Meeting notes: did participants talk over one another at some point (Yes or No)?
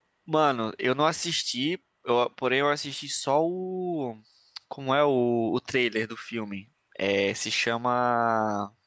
No